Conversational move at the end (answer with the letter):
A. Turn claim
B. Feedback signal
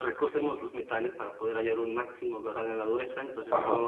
B